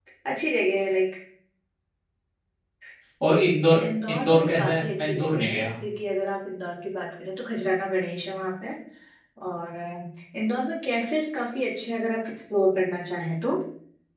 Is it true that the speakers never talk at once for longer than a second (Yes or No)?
No